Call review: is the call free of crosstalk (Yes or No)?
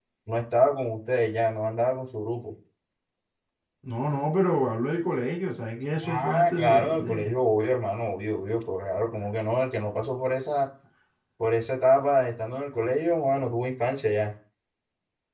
No